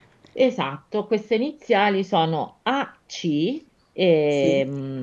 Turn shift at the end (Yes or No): No